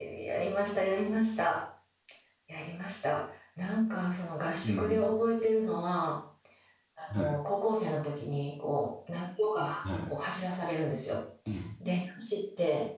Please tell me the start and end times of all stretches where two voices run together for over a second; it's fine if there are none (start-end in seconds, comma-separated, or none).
none